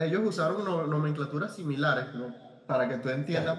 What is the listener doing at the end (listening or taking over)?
listening